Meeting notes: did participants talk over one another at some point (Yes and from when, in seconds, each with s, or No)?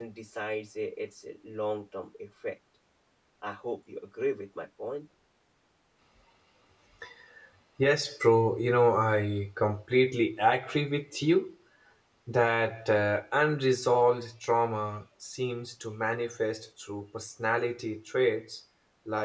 No